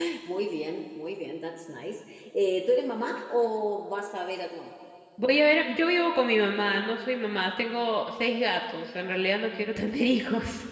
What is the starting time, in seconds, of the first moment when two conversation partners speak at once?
none

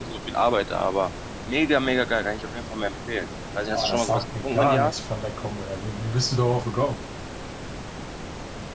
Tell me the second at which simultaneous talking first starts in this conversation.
3.7 s

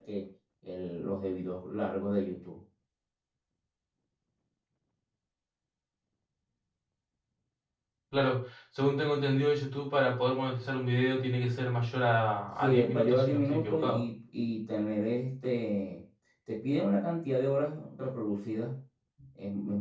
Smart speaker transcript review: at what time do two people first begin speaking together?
12.6 s

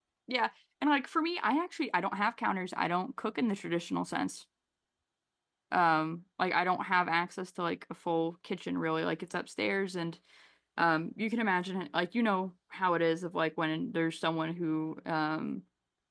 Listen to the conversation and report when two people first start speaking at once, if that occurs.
none

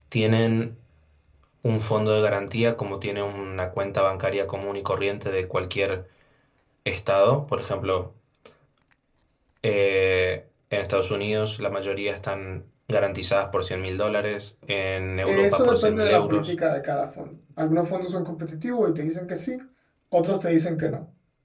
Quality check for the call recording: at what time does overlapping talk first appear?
15.2 s

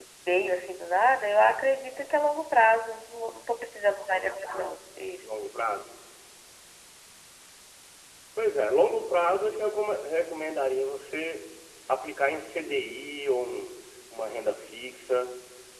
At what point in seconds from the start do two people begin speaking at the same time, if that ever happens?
none

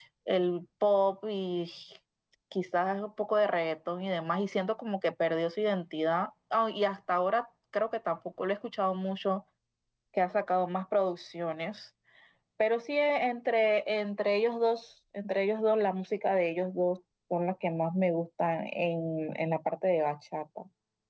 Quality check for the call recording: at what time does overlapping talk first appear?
none

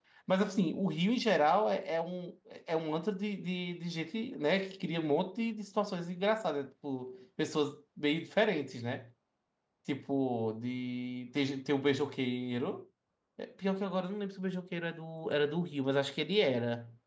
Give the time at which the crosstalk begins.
none

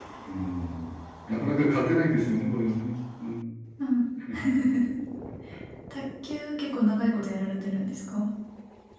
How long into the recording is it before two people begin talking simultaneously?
none

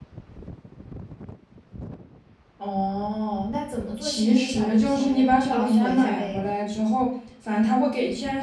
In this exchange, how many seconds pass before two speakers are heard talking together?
4.0 s

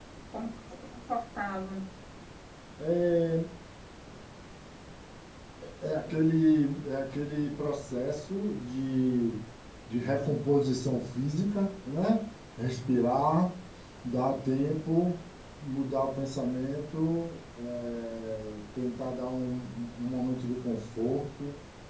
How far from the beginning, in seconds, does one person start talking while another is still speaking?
none

